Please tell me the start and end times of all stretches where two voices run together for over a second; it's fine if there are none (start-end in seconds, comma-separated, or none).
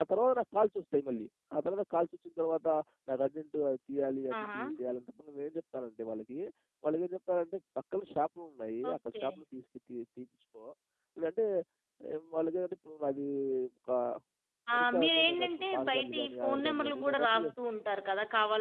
14.8-17.5